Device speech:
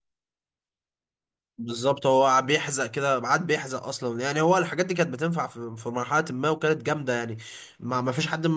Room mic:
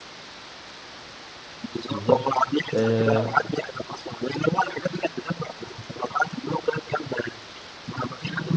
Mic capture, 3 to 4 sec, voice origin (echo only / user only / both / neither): both